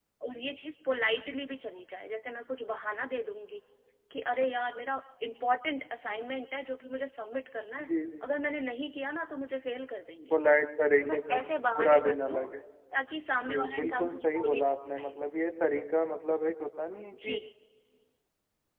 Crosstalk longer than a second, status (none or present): present